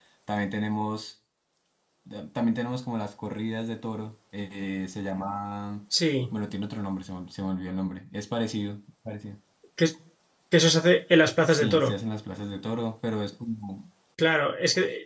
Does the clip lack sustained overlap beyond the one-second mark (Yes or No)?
Yes